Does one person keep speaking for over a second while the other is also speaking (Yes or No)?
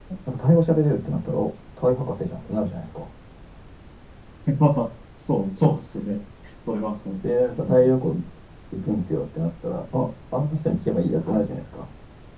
No